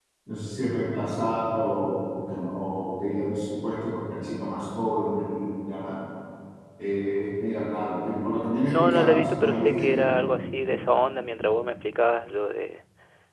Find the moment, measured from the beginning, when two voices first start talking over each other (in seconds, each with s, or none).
8.7 s